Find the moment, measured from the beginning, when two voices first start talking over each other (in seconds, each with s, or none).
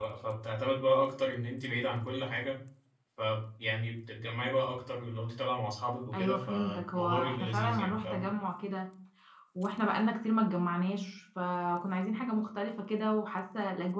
6.1 s